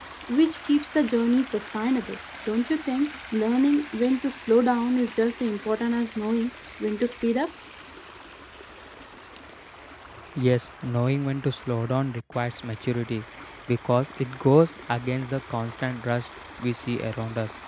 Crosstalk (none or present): none